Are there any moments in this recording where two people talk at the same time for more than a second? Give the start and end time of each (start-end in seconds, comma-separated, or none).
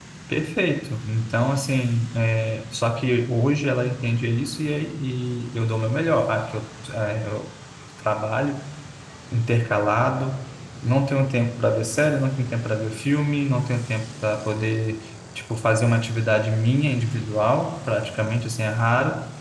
none